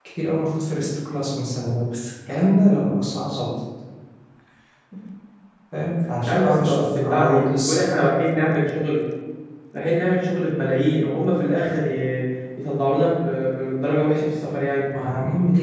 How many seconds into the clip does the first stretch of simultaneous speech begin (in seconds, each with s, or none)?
6.2 s